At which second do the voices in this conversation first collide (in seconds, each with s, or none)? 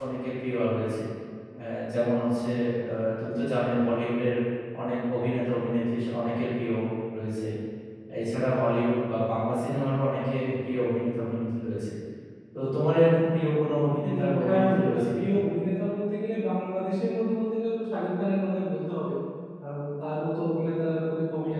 14.0 s